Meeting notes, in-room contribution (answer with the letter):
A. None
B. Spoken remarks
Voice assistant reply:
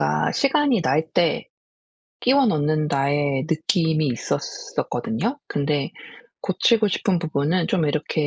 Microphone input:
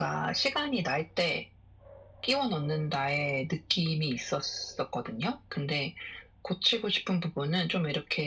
A